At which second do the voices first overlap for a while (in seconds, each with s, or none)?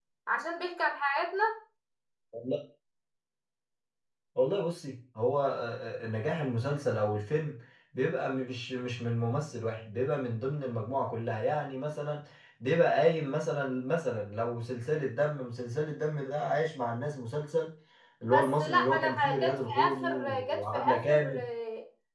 18.3 s